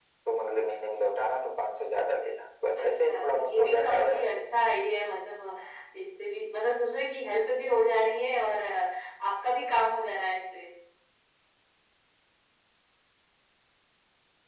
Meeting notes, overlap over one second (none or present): present